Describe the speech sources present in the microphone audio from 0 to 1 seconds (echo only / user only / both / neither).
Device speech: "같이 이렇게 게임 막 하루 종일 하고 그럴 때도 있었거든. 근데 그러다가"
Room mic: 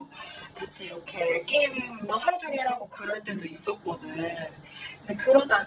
echo only